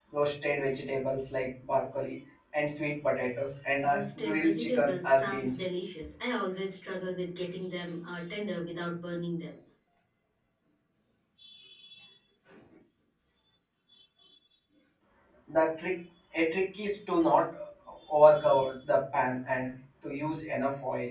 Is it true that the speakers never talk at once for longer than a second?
No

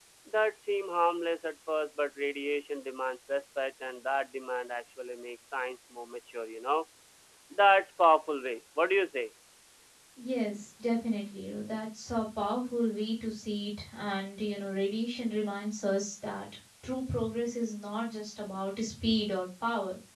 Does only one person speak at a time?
Yes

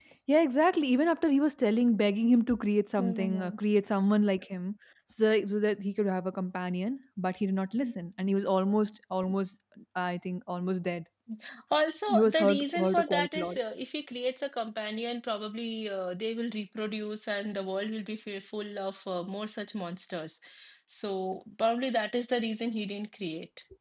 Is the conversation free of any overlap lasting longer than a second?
No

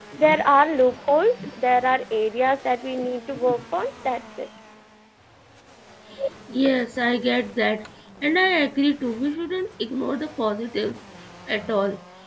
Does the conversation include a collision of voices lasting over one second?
No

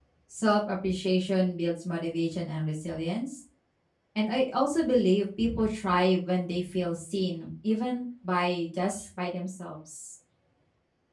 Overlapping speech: No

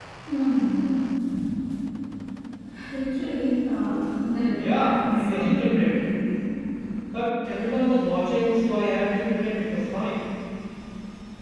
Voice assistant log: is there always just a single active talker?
No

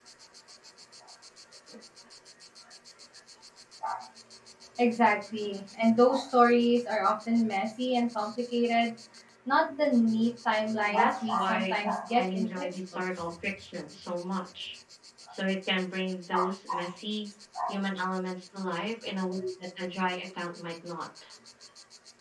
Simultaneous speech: Yes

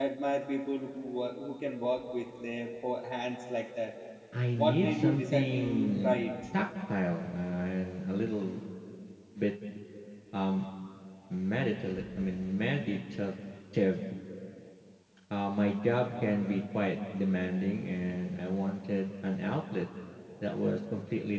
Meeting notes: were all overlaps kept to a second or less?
No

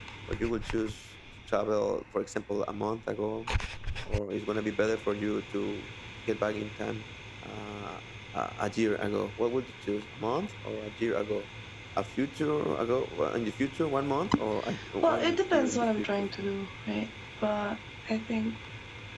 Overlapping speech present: Yes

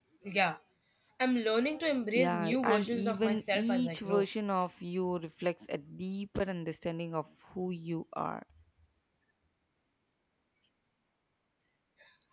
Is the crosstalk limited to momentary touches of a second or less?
No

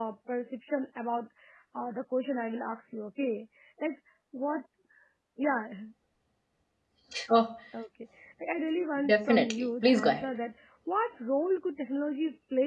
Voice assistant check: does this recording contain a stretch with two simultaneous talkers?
Yes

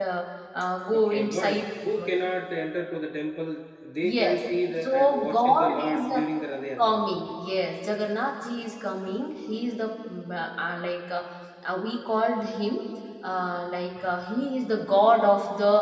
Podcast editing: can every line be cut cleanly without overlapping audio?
No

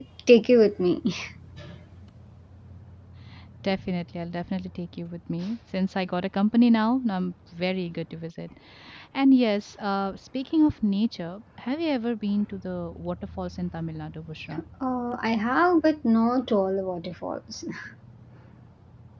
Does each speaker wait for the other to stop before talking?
Yes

